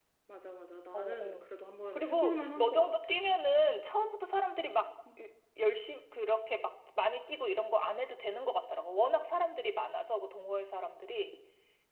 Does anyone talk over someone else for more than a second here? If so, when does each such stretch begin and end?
1.9-3.1

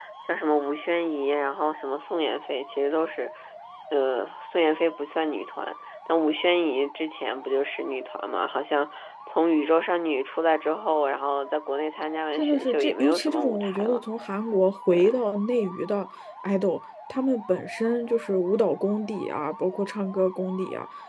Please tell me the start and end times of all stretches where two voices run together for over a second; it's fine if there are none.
12.3-14.0

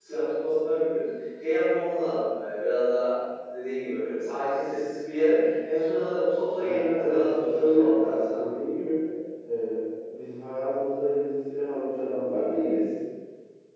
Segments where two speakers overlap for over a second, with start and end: 6.6-8.4

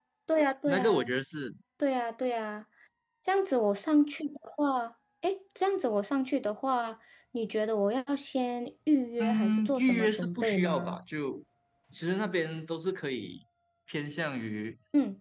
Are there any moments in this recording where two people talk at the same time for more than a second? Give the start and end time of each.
9.2-11.0

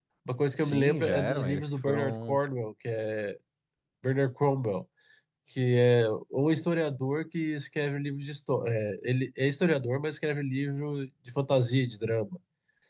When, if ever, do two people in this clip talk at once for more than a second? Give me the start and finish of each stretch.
0.6-2.4

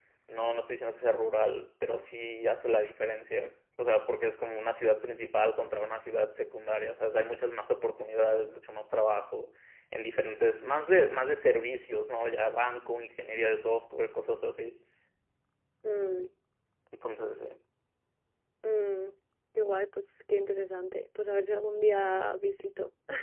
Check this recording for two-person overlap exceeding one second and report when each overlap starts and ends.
none

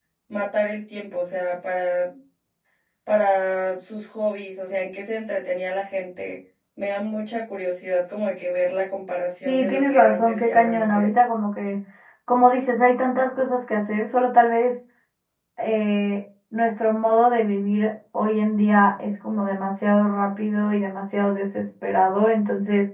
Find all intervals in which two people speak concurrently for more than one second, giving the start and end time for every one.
9.4-11.1

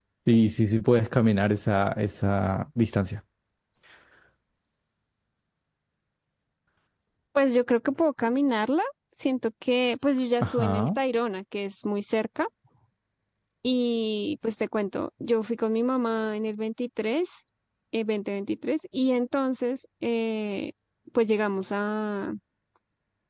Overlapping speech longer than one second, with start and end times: none

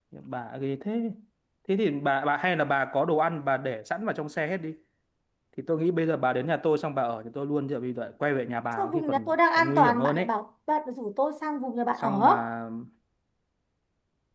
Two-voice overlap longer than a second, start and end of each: 8.8-10.2

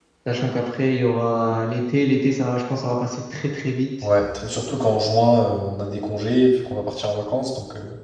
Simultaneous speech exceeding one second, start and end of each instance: none

